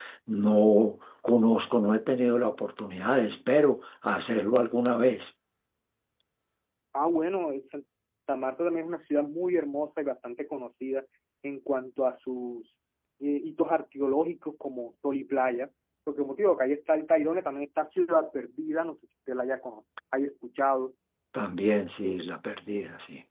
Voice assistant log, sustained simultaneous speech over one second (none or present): none